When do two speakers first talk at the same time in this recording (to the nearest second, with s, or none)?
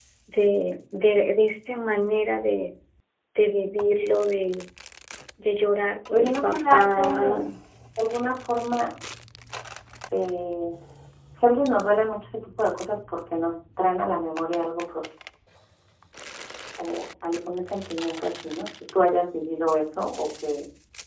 6 s